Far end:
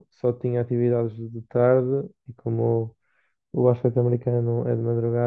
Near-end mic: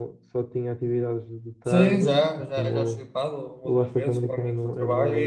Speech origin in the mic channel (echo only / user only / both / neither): both